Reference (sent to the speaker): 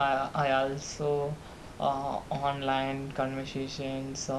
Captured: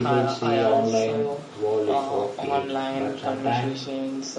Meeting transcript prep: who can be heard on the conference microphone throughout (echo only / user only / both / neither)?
both